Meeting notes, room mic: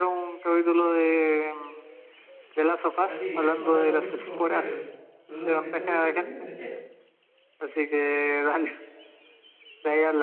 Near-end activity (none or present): present